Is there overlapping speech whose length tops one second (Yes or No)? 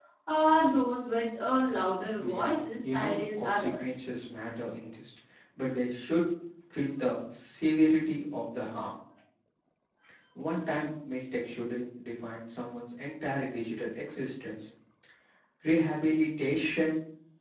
Yes